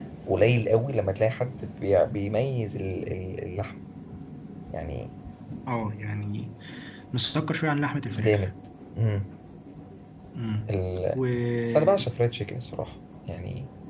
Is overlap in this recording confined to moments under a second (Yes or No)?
Yes